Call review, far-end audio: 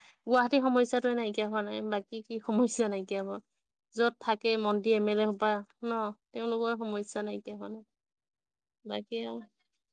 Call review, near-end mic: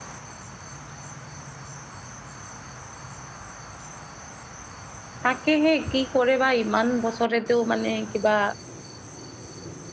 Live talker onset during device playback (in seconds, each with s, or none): 5.2 s